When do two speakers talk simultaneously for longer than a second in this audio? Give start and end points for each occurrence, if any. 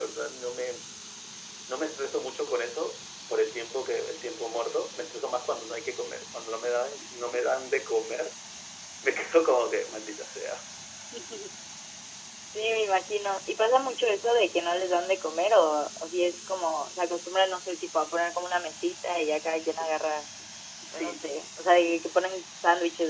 none

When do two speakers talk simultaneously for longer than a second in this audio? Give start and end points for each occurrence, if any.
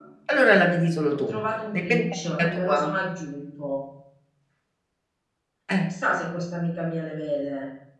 1.7-3.0

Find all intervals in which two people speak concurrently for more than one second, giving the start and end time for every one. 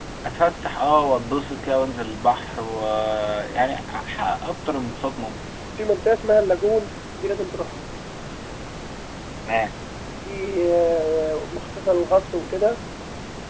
none

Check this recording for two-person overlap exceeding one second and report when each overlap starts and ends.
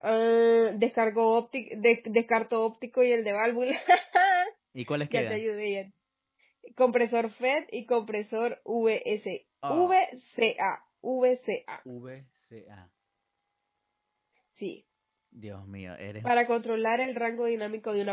none

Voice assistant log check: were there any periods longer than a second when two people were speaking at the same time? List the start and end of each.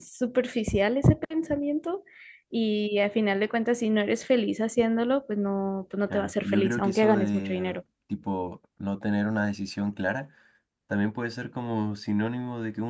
6.1-7.8

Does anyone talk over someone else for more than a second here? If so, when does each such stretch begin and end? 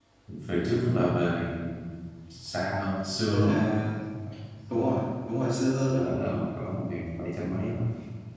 none

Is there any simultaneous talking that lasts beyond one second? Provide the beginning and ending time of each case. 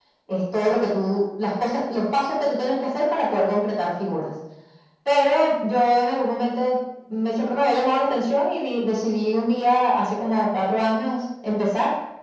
none

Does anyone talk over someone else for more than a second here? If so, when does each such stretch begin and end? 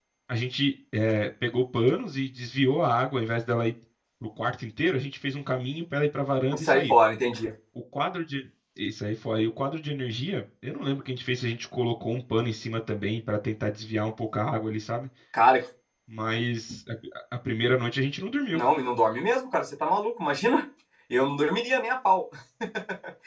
none

